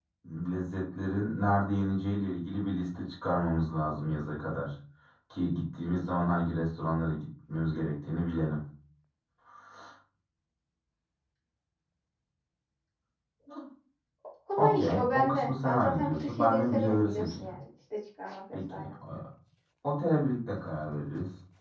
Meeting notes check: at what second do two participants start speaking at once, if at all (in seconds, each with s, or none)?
14.6 s